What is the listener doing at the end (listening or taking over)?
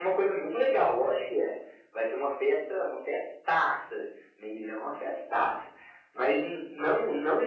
listening